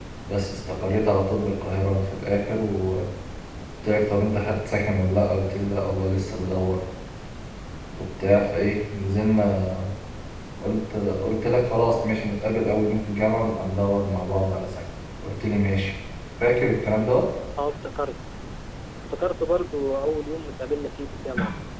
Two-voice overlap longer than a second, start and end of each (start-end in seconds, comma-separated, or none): none